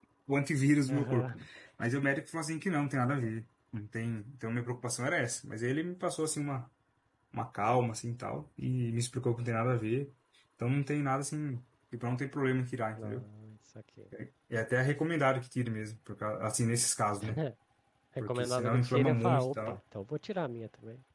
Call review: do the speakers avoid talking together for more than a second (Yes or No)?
No